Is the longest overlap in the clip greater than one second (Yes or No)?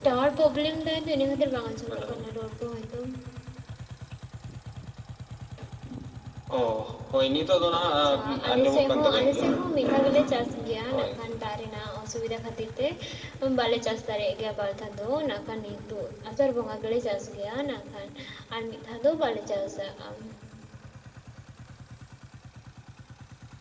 Yes